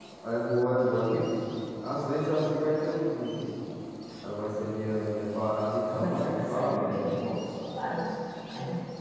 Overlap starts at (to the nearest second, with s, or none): 6 s